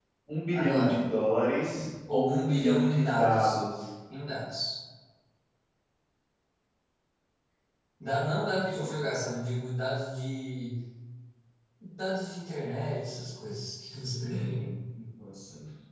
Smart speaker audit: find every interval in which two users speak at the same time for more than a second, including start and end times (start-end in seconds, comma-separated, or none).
2.1-3.6